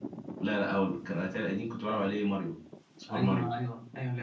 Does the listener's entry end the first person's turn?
Yes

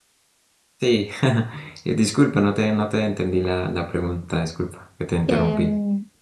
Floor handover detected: Yes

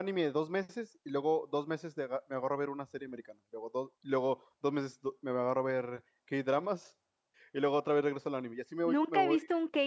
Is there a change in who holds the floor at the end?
Yes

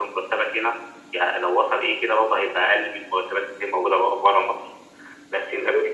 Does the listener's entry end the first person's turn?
No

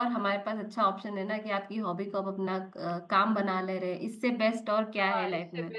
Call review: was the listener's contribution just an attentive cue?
No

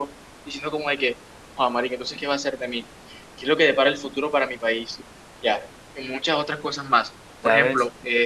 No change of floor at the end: Yes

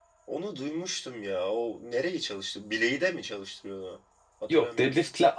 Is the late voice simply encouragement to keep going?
No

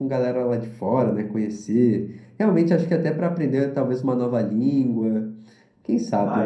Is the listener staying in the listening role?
No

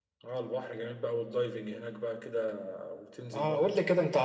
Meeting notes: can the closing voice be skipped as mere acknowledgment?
No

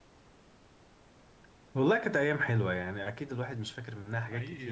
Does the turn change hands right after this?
No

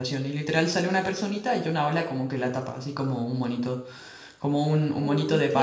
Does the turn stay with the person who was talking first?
Yes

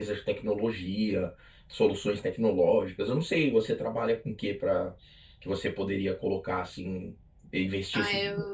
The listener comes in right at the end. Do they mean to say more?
Yes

